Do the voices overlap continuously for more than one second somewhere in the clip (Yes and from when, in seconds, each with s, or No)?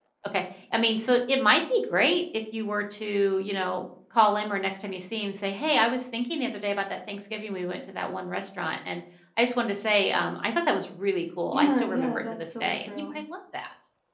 Yes, from 11.5 s